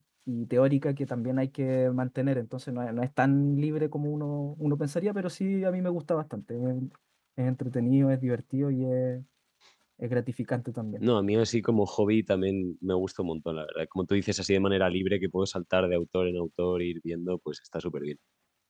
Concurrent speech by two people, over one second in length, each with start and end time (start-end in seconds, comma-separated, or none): none